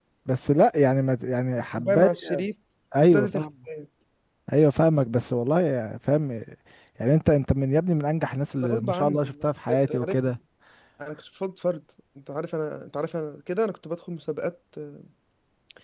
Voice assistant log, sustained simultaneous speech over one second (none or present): present